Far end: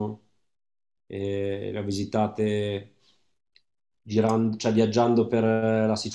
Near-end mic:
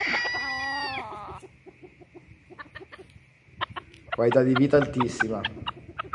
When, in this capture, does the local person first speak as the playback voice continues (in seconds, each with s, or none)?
4.1 s